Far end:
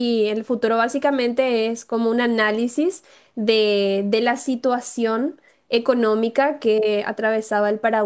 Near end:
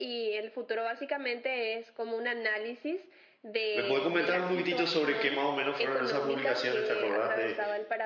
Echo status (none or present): present